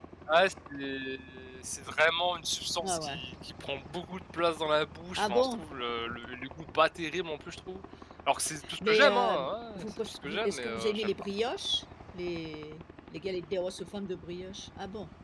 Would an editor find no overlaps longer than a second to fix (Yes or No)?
No